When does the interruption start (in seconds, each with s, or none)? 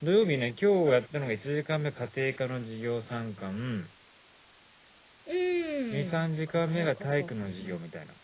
5.9 s